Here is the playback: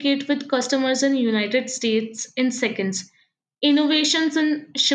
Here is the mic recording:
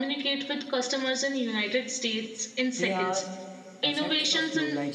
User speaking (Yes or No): Yes